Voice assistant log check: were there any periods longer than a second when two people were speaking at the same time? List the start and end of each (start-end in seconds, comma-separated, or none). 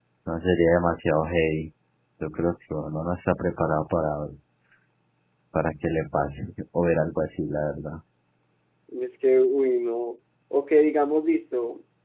none